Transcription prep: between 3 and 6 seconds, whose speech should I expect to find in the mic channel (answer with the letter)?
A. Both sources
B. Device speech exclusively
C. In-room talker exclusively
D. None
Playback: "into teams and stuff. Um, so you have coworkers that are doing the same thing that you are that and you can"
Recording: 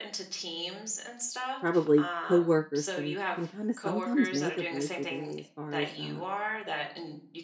A